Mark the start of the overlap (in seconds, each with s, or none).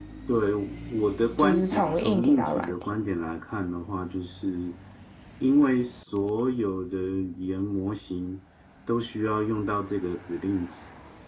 1.4 s